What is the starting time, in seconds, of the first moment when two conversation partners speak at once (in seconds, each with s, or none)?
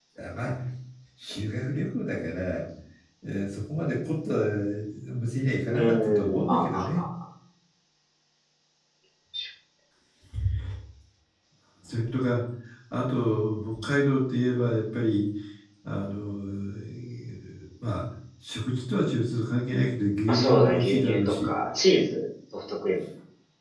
5.7 s